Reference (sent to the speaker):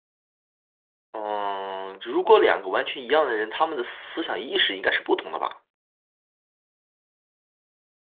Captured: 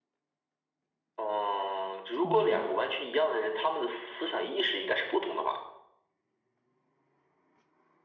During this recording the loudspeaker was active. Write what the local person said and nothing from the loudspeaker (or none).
功能。